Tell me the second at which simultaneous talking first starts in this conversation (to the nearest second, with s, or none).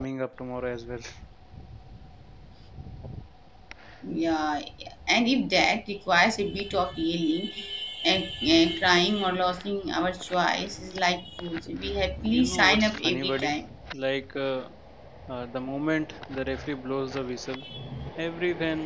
12 s